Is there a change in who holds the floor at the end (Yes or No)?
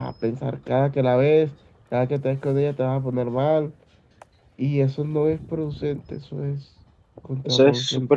Yes